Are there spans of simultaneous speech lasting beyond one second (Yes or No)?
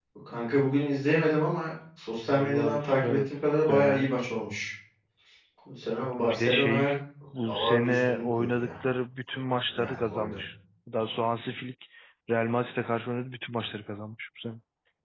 Yes